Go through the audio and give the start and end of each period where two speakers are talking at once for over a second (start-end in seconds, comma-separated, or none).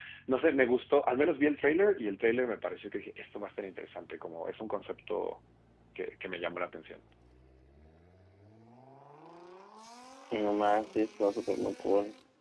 none